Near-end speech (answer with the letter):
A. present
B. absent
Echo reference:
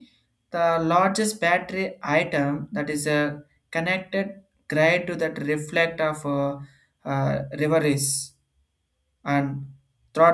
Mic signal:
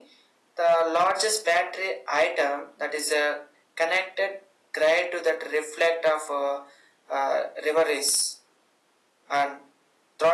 B